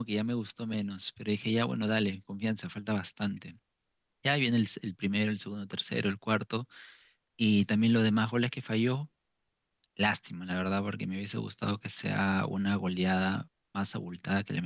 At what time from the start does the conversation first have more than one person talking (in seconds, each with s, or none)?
none